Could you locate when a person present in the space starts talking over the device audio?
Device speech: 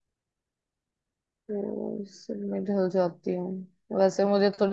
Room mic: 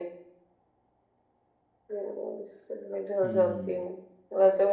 3.2 s

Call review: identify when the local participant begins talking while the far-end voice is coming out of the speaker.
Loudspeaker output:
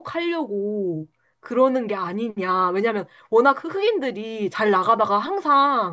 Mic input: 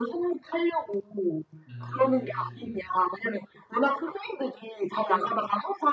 1.7 s

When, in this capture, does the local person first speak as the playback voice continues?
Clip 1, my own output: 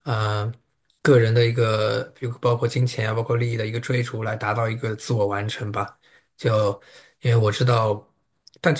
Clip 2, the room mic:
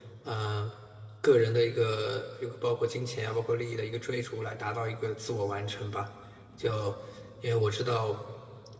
none

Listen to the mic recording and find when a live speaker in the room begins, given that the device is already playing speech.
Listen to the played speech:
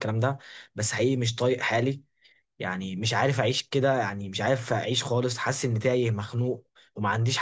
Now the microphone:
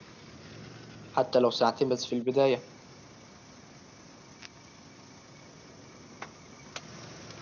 1.1 s

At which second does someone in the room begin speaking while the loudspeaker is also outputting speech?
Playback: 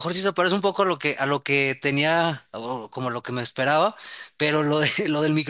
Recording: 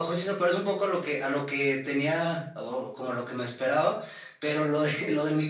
none

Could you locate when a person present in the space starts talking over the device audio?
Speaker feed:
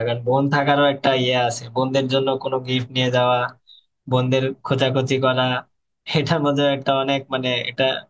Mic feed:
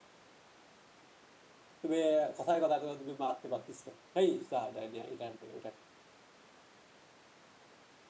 1.8 s

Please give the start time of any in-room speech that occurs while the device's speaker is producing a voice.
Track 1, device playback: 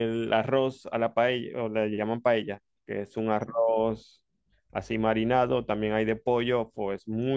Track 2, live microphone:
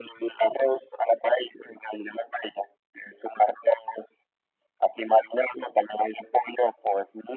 none

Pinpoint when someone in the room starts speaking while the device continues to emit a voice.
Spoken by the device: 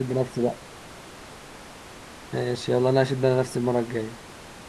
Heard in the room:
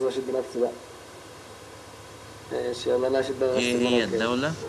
3.5 s

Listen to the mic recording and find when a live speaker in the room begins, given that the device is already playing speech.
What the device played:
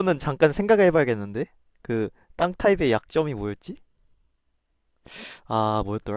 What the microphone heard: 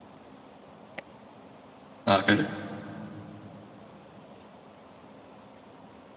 2.0 s

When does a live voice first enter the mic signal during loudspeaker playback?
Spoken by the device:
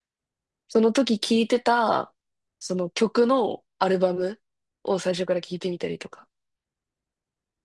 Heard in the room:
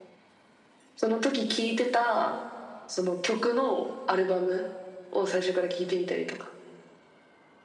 none

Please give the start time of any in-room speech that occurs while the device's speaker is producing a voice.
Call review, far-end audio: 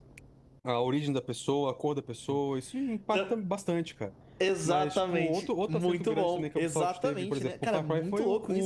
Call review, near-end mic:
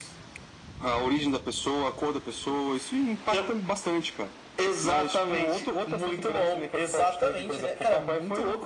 none

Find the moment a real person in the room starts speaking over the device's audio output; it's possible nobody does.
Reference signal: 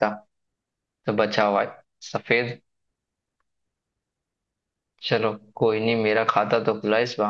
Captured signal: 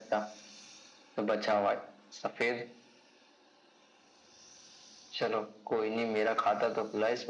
none

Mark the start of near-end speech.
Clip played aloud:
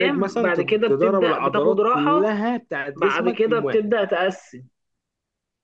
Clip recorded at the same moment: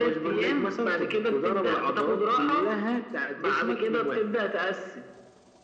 none

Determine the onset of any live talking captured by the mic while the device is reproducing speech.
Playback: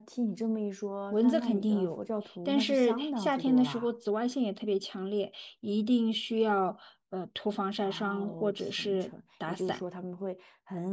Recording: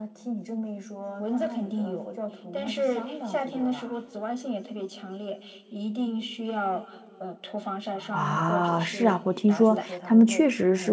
8.1 s

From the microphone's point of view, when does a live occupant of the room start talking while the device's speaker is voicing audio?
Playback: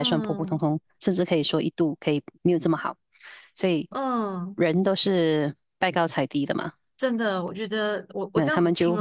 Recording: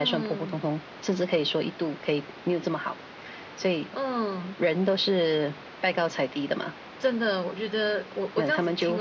none

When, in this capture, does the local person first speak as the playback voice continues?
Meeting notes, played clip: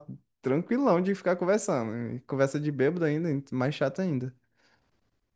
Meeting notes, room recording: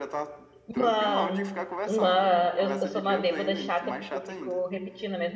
0.7 s

